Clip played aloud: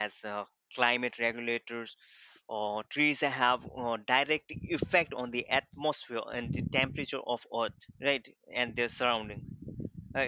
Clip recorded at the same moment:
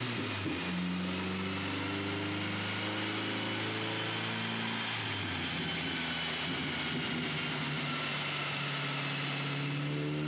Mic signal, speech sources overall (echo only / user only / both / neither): neither